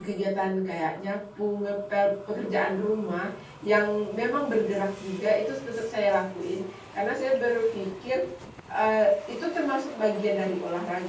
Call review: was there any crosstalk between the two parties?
No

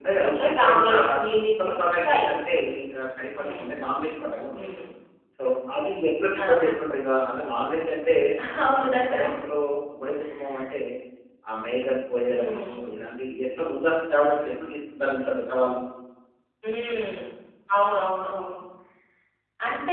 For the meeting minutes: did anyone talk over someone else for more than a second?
Yes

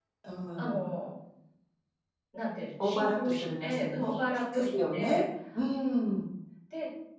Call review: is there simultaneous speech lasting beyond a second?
Yes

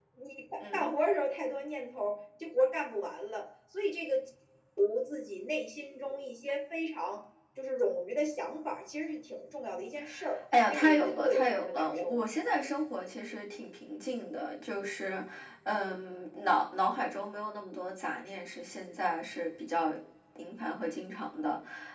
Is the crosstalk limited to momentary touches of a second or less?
No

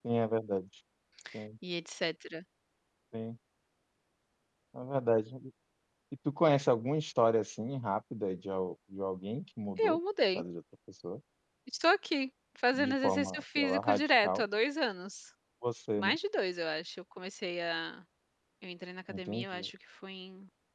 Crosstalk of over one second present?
Yes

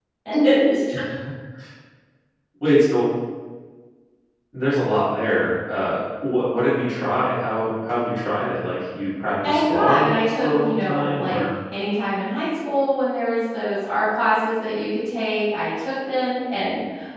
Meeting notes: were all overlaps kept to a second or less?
No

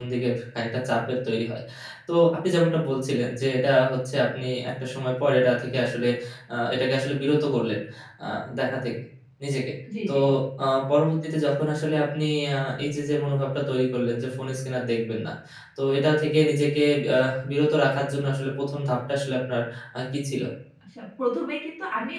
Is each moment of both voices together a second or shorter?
Yes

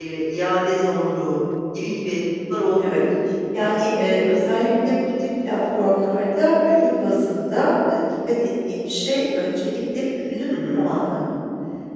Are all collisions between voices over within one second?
Yes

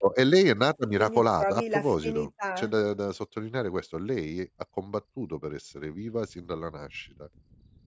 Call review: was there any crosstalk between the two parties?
Yes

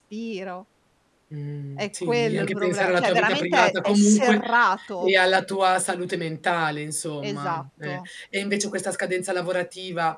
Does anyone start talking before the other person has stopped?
Yes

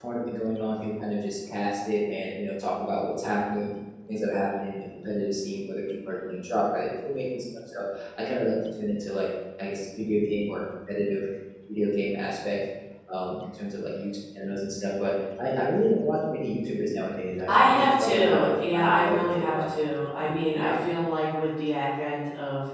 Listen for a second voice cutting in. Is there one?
Yes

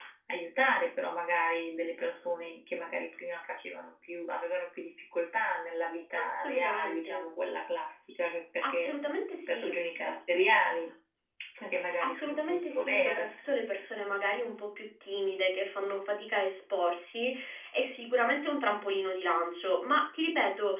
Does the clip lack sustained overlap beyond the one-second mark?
No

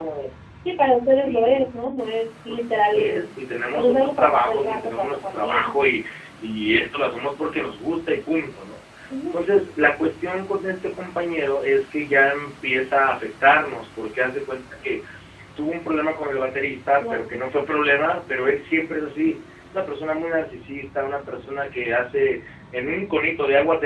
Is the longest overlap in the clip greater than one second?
Yes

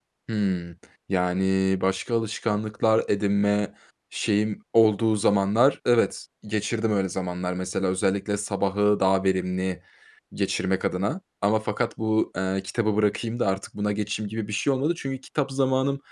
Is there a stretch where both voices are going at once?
No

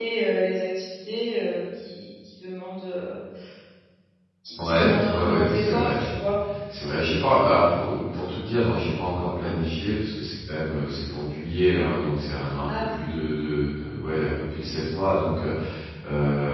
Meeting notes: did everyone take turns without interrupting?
No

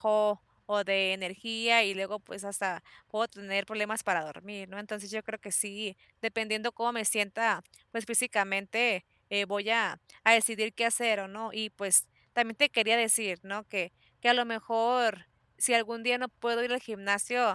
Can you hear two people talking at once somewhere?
No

